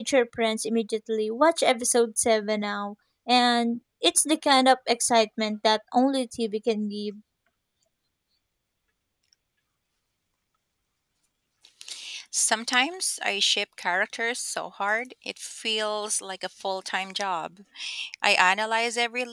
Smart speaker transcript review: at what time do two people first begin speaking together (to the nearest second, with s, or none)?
none